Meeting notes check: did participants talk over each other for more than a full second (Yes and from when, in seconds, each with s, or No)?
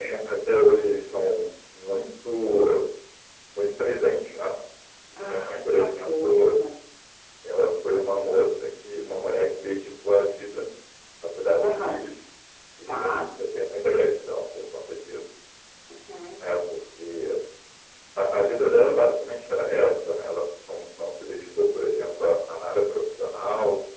Yes, from 5.2 s